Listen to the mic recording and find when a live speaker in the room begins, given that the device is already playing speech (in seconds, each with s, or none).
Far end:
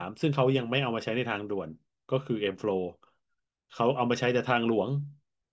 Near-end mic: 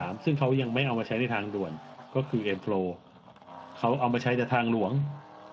none